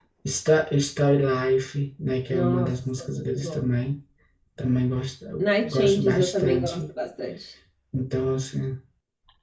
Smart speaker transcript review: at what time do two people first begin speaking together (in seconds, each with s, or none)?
2.3 s